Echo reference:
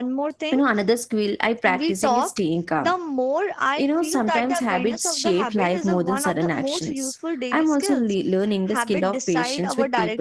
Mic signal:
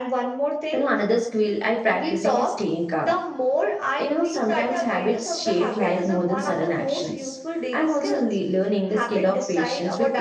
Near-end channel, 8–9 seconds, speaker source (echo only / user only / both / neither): echo only